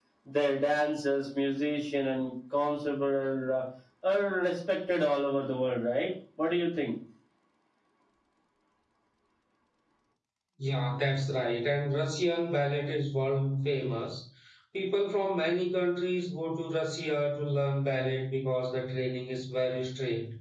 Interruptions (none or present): none